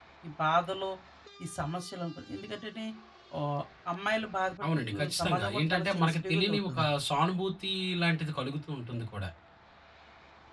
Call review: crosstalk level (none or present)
present